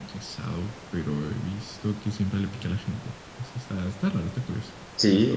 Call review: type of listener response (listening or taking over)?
taking over